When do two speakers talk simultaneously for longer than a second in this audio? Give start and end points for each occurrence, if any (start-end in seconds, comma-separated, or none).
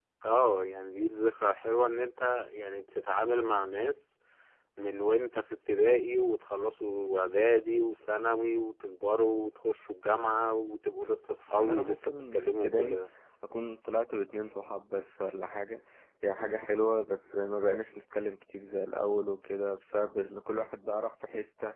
11.5-13.0